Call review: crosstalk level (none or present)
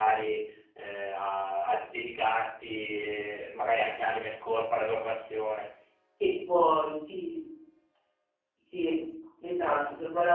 none